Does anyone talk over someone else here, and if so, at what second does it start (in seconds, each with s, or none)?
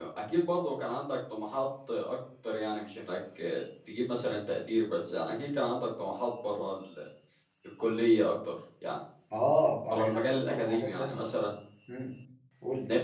9.9 s